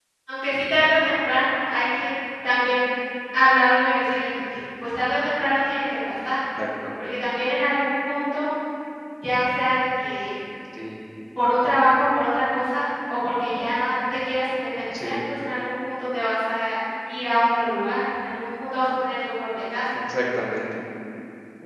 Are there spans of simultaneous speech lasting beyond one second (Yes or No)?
No